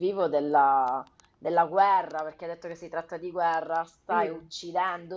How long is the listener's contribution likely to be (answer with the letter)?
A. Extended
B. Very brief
B